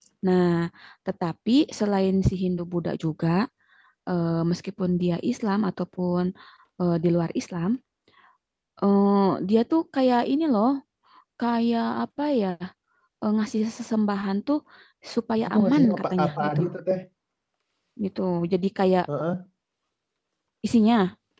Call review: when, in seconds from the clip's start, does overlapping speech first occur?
15.4 s

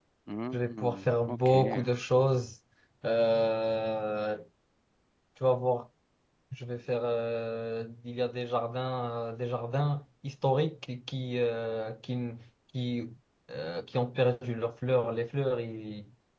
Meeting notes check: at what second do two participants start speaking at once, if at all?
0.5 s

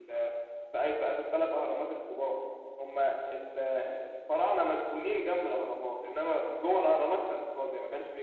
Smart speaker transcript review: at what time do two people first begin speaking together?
none

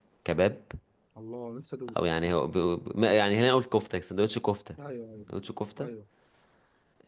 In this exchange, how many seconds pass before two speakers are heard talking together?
none

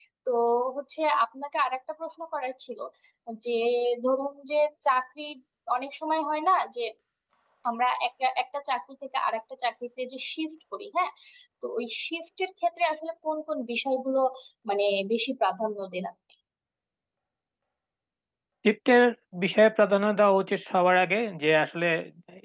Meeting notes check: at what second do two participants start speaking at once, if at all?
none

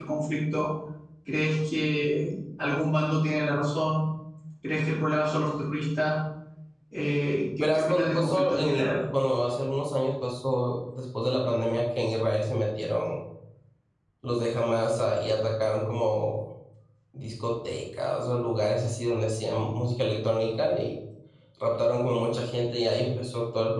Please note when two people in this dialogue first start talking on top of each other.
7.6 s

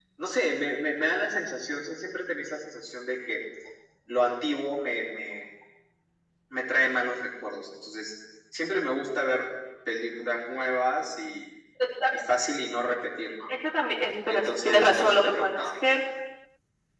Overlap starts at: 14.3 s

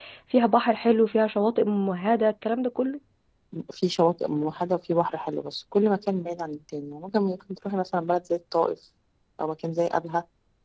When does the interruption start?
none

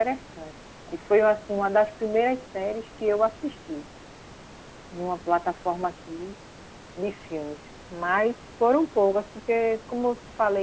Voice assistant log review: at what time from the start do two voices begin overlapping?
none

